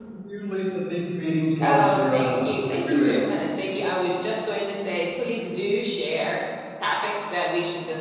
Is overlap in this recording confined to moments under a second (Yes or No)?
No